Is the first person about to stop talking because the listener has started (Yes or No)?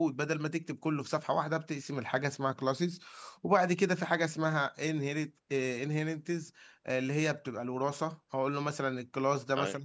No